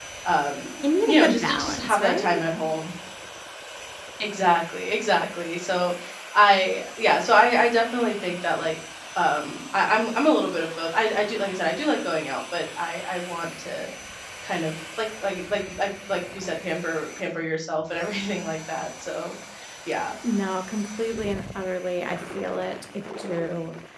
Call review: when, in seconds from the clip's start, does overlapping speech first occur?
1.1 s

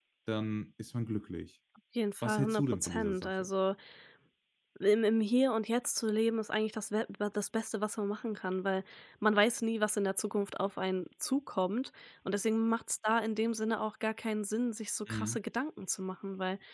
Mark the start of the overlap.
2.2 s

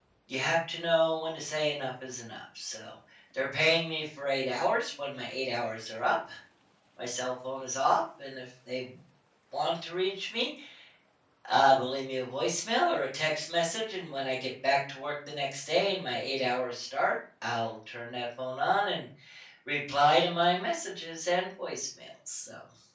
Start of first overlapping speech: none

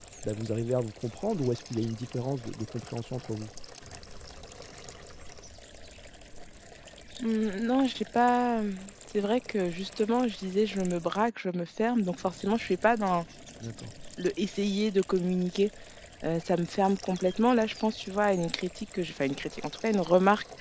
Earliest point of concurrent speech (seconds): none

